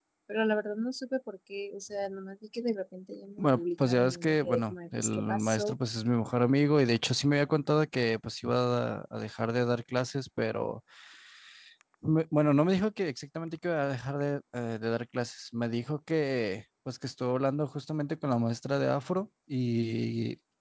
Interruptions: present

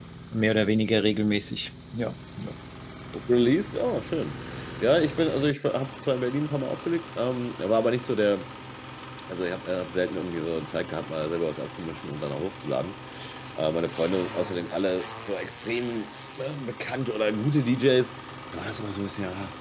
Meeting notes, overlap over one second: none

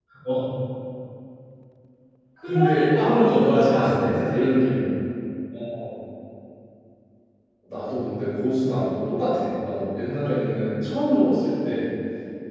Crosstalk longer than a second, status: present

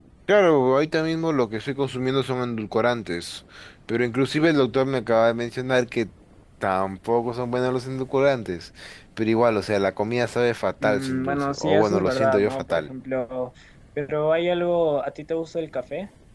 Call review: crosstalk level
present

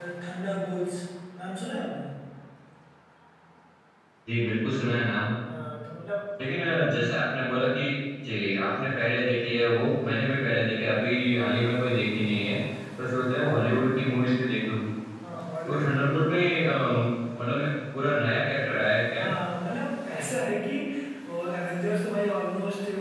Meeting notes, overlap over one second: none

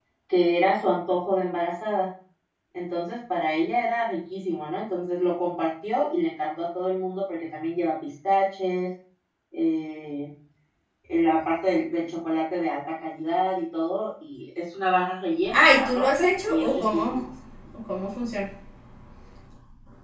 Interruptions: present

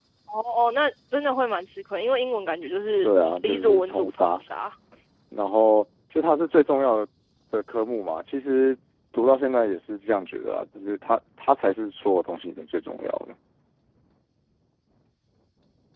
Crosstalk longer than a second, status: present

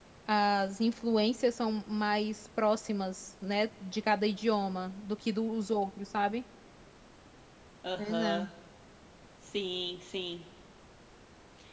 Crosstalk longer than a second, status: none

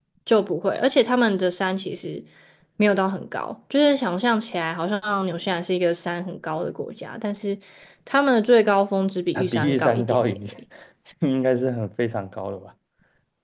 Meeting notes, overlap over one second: present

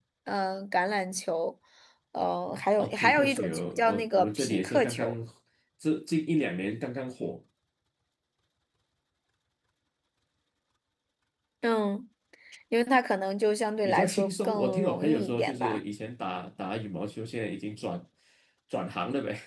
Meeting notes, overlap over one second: present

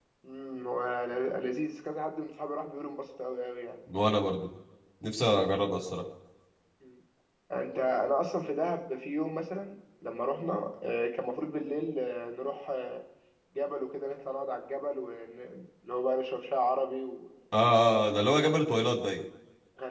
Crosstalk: none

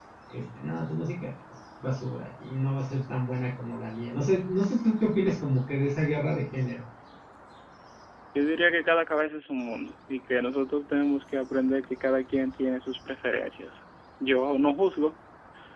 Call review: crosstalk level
none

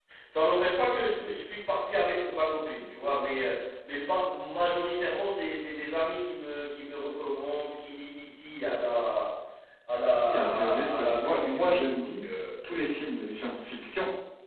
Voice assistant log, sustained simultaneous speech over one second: present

